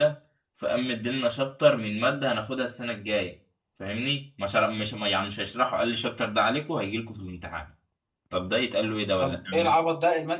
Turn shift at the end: Yes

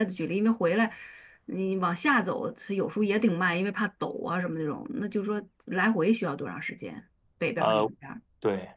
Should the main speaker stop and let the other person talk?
Yes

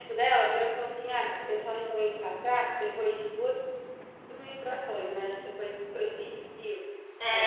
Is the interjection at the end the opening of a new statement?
Yes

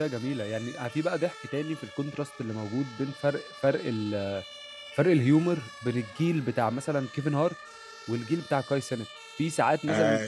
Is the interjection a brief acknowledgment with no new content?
Yes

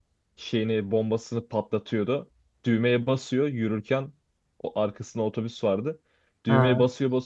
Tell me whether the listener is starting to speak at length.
No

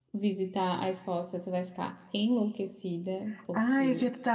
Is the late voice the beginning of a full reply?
Yes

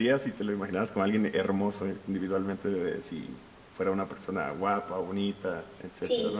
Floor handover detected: Yes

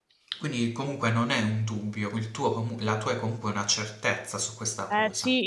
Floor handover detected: Yes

